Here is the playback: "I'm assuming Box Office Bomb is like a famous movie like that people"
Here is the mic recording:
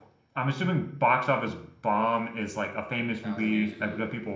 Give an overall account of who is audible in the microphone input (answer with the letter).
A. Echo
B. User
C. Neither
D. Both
D